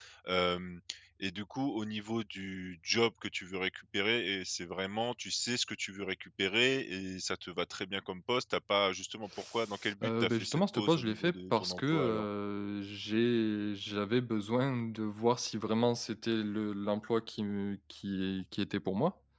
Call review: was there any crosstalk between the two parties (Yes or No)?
Yes